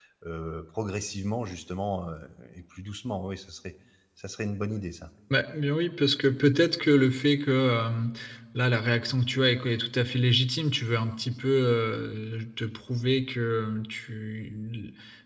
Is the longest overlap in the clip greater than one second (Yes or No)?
No